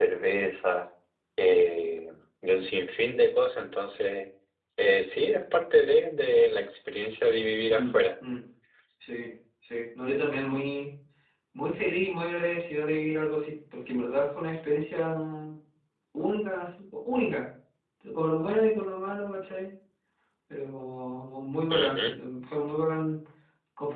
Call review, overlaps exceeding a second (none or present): none